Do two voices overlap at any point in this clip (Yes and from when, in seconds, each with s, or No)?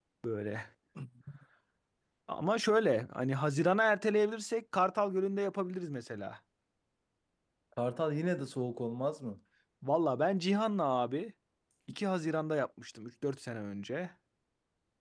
No